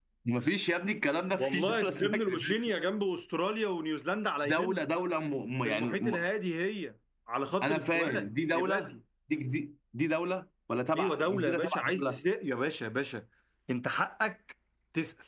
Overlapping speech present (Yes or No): Yes